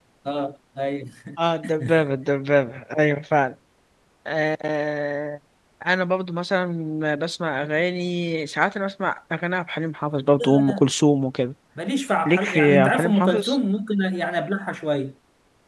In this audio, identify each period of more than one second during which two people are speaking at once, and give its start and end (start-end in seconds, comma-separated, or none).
12.2-13.6